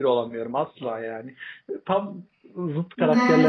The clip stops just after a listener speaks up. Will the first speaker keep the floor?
No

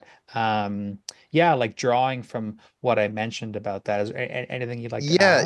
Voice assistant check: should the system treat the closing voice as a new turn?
Yes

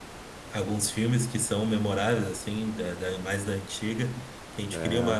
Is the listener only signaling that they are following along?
Yes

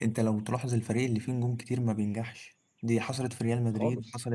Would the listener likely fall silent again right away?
Yes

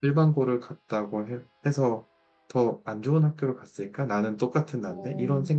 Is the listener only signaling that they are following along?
No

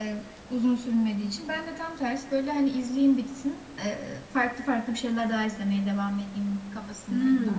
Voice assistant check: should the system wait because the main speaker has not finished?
No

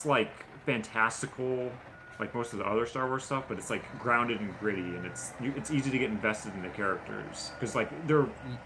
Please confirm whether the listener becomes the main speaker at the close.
No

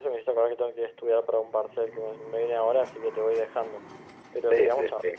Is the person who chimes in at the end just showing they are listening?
No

